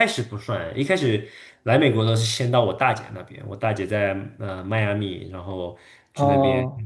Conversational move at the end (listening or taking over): listening